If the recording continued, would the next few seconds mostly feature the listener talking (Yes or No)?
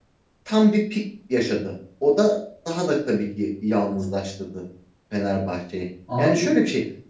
No